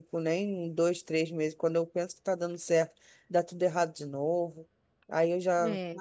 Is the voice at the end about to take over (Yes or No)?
No